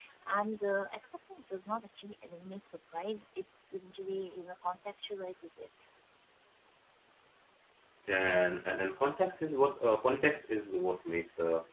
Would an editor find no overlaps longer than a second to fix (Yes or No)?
Yes